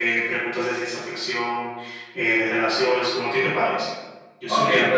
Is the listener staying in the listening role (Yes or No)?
No